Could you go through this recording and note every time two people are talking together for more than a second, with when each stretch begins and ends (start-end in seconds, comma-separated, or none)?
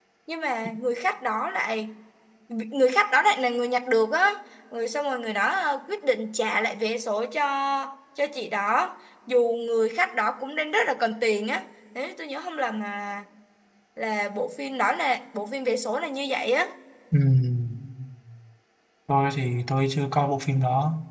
none